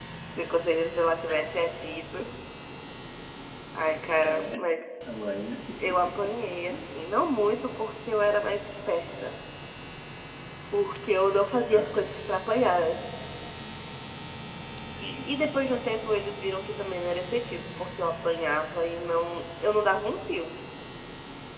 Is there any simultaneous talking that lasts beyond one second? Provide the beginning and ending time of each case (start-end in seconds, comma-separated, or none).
none